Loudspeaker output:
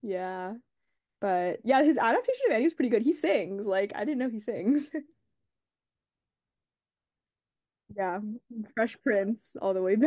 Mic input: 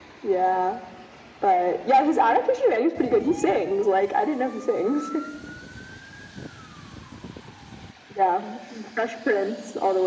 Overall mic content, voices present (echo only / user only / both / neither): echo only